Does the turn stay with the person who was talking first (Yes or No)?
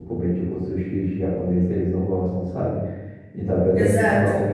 Yes